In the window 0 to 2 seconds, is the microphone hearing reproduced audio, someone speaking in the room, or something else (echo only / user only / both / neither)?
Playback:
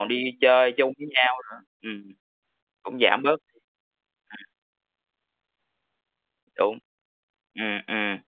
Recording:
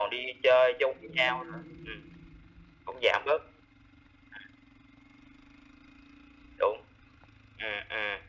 both